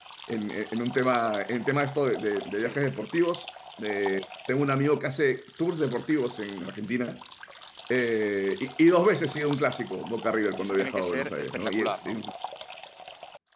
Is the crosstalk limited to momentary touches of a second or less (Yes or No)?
No